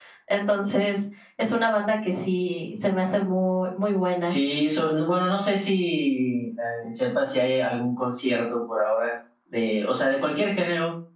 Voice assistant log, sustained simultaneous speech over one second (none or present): none